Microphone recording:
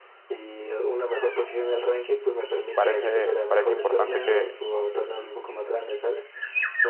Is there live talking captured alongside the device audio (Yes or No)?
Yes